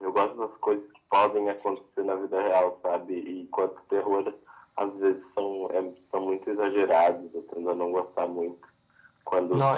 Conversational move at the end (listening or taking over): listening